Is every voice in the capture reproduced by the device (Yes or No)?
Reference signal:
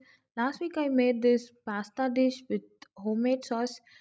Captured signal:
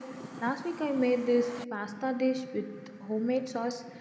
Yes